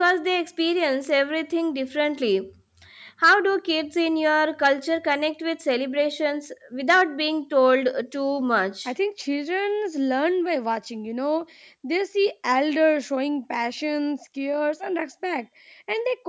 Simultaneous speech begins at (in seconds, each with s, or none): none